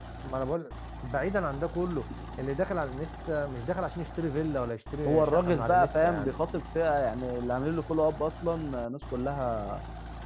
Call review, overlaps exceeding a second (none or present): present